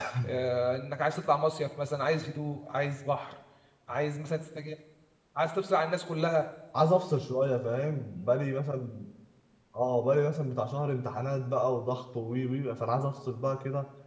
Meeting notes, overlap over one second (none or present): none